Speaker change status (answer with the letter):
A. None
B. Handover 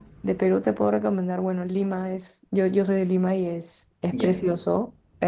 A